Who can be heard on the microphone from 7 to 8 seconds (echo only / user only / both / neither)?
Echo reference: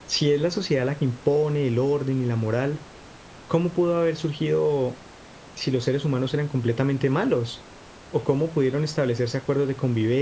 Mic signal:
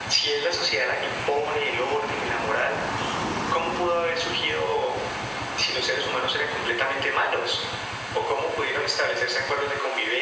echo only